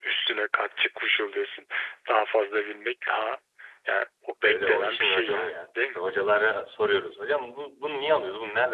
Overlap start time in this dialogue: 4.4 s

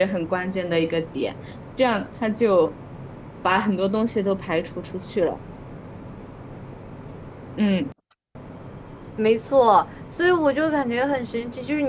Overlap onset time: none

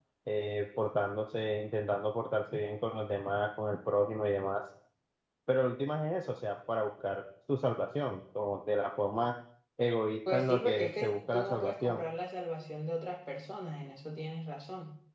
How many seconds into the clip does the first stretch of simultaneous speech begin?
10.3 s

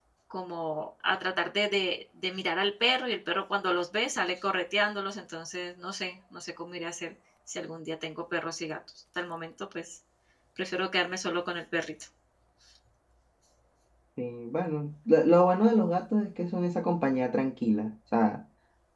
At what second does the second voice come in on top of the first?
none

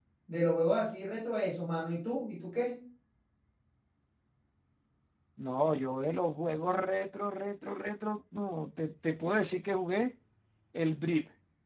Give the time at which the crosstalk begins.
none

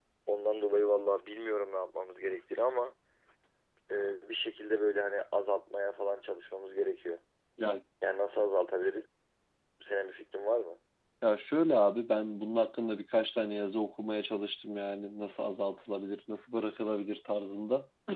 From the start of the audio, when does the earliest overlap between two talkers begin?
none

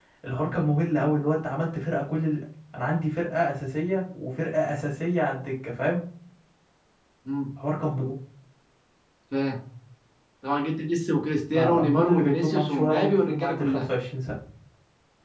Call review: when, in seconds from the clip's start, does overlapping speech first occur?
11.5 s

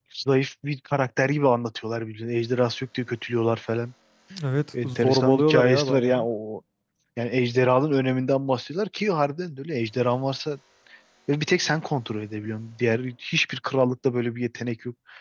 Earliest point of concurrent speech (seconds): 4.8 s

